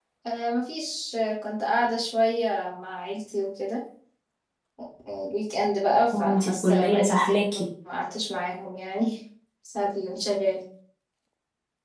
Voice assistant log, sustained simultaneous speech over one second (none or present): present